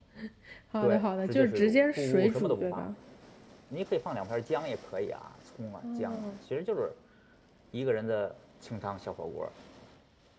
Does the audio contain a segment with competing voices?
Yes, from 0.8 s

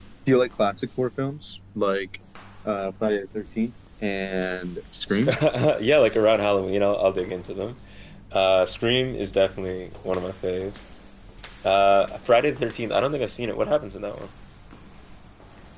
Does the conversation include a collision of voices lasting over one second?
No

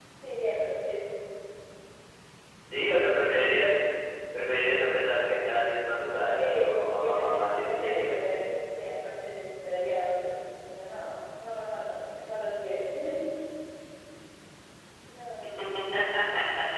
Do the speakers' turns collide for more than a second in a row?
Yes, from 6.2 s

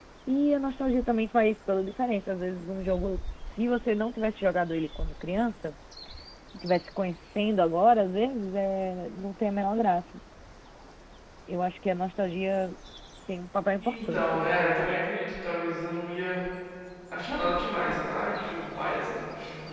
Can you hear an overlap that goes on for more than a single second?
Yes, from 13.8 s

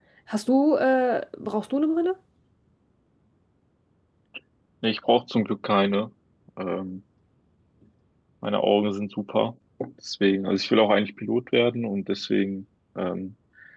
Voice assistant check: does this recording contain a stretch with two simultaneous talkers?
No

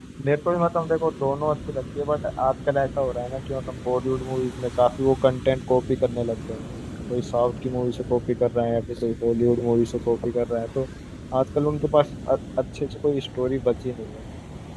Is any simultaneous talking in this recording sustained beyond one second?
No

